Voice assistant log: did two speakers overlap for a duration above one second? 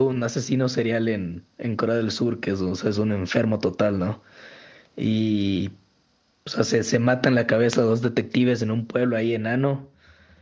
No

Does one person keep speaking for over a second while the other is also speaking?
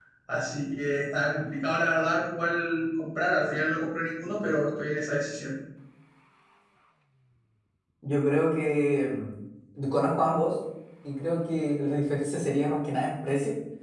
No

